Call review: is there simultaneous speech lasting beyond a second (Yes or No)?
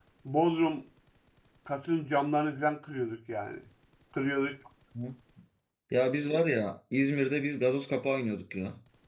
No